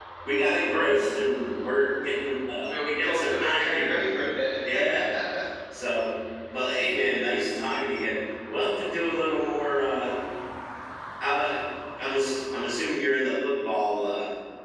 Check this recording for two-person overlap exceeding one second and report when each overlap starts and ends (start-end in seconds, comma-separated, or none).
2.7-4.0